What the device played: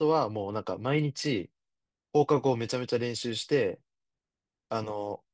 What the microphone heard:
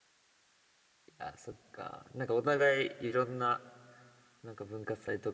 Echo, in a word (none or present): none